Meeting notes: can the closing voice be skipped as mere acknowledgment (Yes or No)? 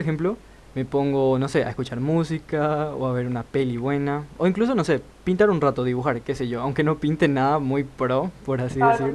No